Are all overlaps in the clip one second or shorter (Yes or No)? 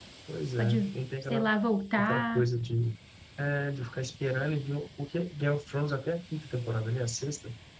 Yes